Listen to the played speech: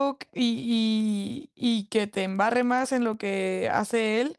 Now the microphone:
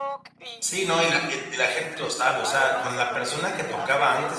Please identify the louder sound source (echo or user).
user